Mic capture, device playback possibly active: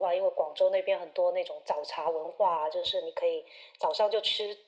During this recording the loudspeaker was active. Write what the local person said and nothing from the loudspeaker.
none

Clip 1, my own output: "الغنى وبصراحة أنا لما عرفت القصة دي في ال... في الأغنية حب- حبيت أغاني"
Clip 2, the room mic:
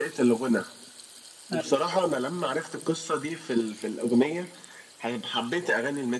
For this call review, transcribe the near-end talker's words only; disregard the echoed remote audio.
ايوه

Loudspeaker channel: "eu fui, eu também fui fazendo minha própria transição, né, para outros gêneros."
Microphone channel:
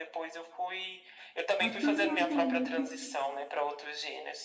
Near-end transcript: A Primadonna

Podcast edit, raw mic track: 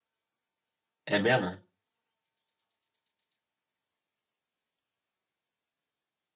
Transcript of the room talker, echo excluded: É mesmo?

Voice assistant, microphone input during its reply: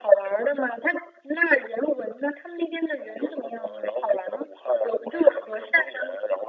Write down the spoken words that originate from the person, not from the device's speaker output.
none

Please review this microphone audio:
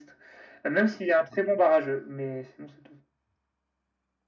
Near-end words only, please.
none

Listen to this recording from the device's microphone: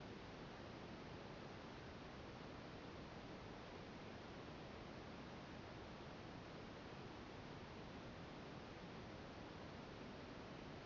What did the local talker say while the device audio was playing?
none

